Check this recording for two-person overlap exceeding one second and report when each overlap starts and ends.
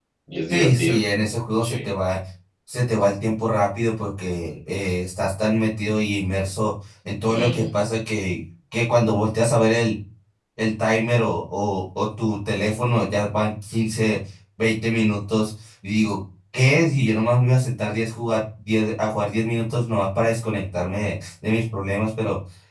none

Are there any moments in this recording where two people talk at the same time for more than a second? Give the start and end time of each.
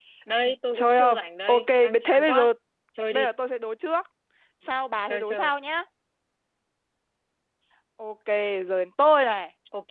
0.7-2.5

